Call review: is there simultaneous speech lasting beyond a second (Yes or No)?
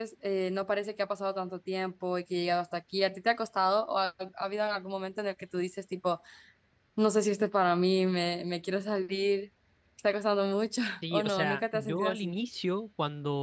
Yes